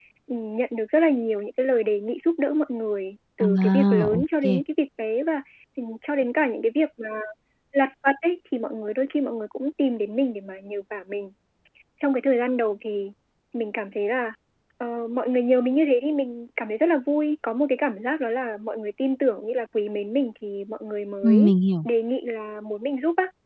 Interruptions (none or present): present